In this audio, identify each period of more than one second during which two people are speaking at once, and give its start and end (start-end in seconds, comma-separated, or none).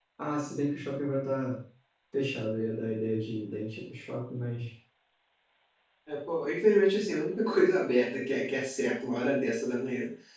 none